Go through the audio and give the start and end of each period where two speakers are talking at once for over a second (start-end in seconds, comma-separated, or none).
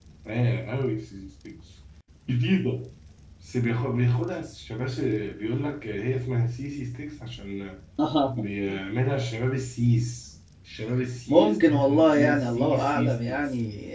11.3-13.4